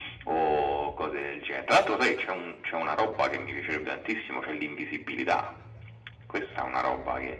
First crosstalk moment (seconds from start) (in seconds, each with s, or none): none